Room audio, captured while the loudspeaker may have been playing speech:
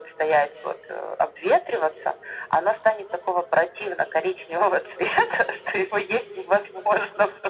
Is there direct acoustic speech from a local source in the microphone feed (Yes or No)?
No